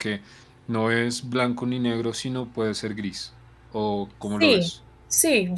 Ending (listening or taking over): taking over